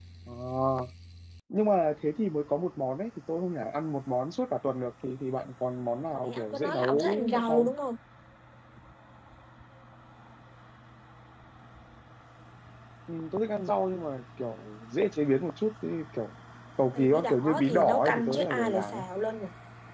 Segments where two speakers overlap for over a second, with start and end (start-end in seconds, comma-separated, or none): 6.2-7.7, 16.9-19.0